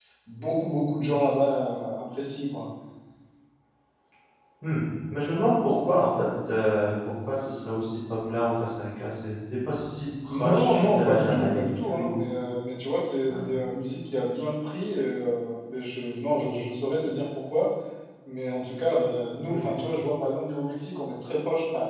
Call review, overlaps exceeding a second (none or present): present